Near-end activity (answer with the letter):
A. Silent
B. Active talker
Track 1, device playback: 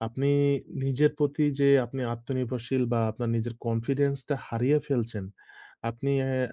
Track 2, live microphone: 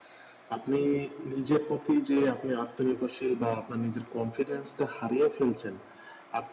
A